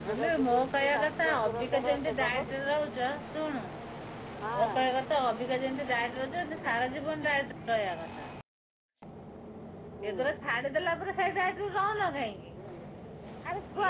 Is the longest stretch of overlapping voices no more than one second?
No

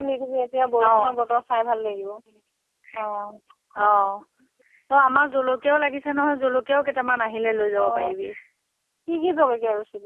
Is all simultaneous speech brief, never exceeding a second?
Yes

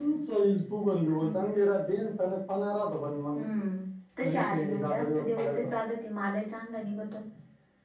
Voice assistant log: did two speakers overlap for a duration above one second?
Yes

